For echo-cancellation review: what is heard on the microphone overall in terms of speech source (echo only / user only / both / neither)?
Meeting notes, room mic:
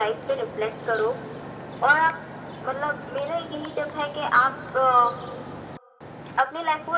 echo only